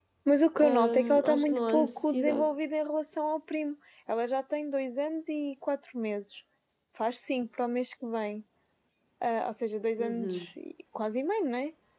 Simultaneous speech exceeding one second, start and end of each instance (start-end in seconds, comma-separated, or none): 0.6-2.5